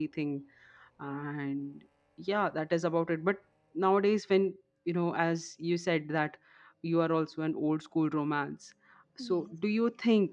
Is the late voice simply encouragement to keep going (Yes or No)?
Yes